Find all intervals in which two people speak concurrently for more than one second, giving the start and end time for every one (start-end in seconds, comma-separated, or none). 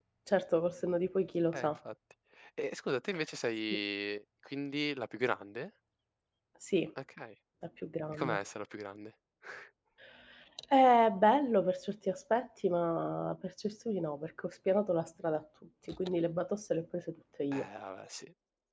none